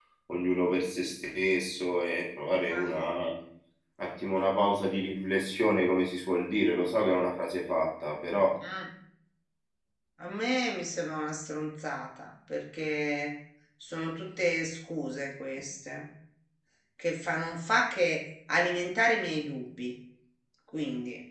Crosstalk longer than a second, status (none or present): none